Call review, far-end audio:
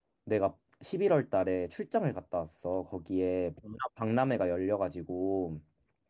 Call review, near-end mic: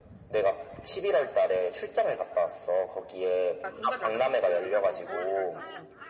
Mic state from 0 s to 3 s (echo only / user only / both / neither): echo only